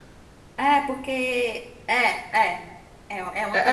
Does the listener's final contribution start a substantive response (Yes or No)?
Yes